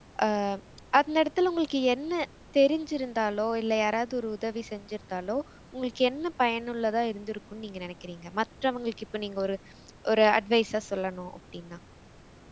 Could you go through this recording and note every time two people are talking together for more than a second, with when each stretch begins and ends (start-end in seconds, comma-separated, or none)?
none